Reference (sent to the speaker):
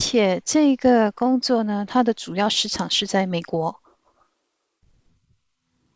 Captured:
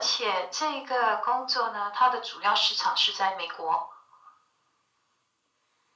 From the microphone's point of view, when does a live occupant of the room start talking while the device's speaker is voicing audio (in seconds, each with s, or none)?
none